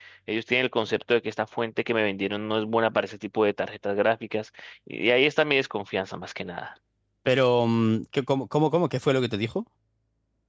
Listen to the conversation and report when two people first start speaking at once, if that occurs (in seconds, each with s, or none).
none